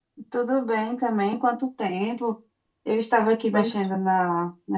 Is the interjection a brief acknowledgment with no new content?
Yes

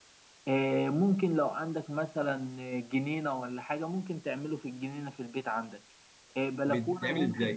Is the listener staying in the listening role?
Yes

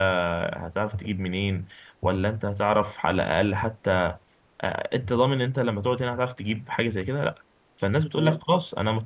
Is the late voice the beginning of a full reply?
No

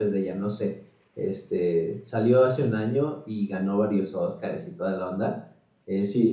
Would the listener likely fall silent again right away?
No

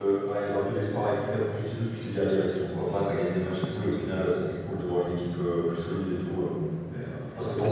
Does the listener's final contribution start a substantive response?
Yes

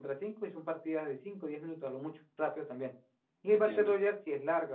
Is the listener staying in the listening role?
Yes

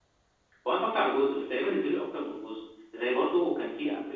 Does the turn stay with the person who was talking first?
Yes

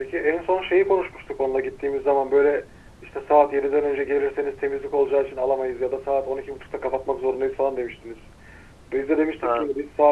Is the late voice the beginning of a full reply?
No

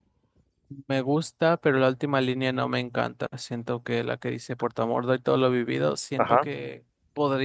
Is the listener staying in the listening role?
Yes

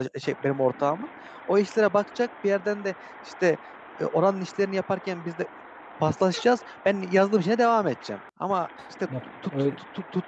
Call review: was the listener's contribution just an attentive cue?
Yes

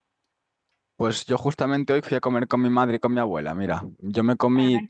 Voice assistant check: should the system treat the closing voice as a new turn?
No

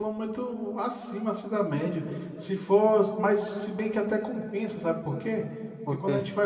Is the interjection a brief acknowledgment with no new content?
Yes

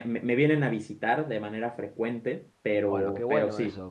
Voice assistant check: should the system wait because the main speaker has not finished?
No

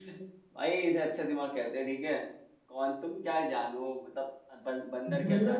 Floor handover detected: Yes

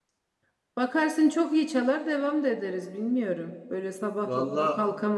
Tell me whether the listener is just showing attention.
Yes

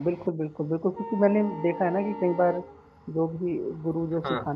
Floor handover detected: No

